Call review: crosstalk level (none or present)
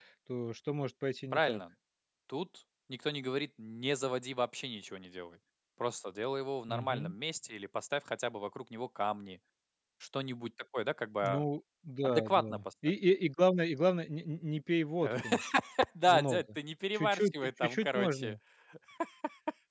present